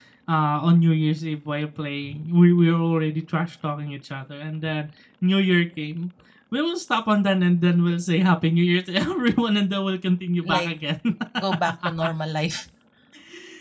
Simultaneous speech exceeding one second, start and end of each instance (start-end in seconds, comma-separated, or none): none